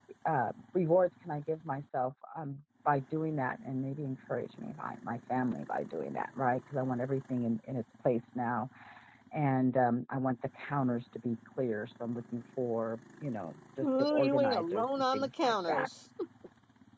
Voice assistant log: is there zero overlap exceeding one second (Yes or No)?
No